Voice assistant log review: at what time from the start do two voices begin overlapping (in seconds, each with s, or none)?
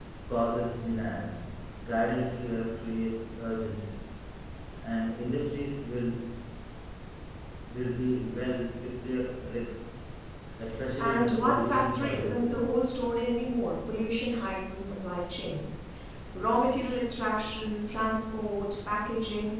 11.0 s